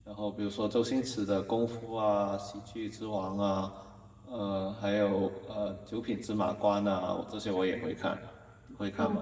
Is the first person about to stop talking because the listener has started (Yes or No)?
Yes